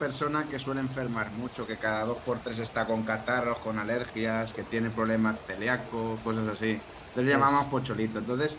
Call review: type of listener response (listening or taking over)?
listening